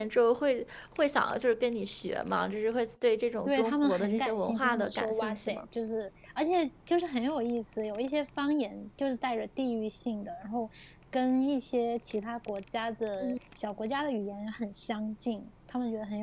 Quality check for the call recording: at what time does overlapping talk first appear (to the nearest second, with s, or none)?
3 s